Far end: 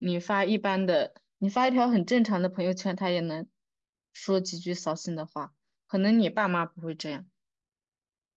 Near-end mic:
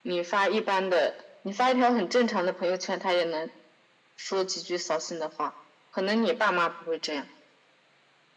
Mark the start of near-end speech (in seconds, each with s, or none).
none